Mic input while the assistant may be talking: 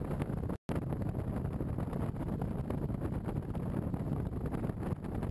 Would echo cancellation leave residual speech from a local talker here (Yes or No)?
No